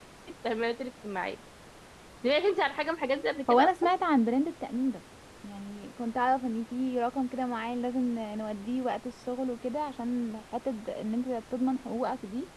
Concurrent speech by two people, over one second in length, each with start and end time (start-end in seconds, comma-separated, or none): none